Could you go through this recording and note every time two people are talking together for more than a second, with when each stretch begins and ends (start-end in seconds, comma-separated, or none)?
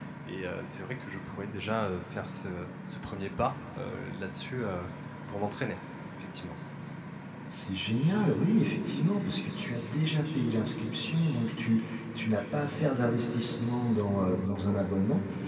none